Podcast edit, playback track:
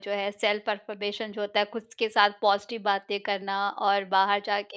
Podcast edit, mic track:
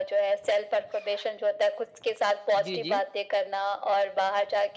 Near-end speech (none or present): present